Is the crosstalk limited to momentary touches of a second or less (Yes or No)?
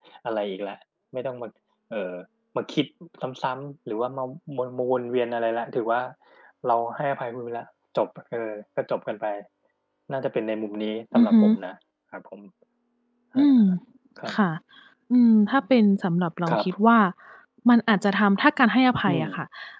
Yes